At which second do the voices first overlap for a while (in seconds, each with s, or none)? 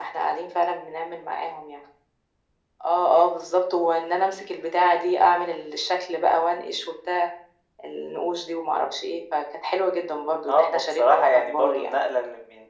10.5 s